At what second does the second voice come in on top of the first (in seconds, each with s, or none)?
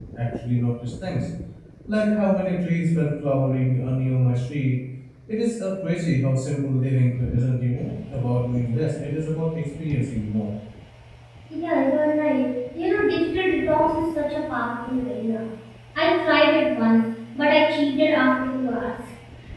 none